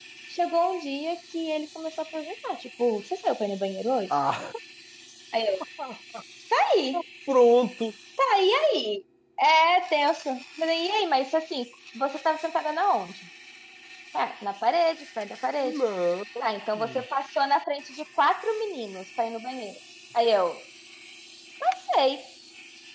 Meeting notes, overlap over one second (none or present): none